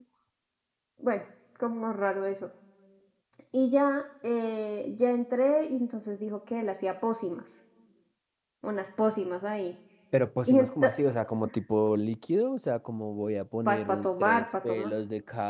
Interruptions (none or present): present